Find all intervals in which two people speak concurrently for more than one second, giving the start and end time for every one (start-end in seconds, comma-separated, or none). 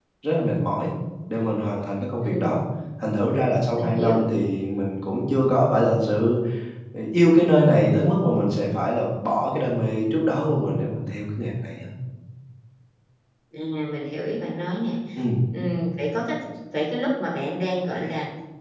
none